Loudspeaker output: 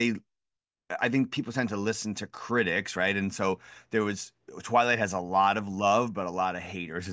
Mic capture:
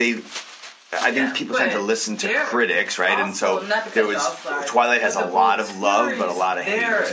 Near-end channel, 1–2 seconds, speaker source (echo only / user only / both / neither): both